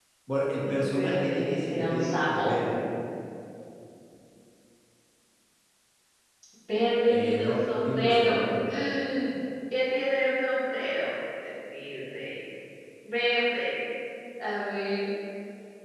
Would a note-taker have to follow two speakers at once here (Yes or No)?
Yes